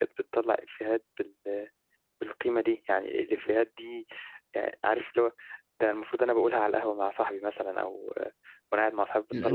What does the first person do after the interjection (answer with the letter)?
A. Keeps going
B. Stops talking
B